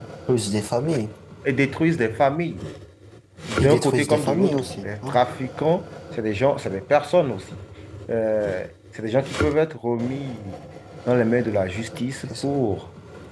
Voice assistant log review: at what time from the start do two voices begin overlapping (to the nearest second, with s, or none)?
4 s